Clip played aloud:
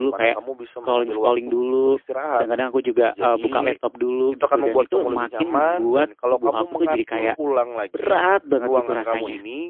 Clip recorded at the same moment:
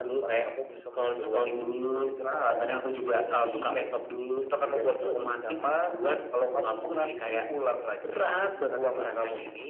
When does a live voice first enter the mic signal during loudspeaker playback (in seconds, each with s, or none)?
none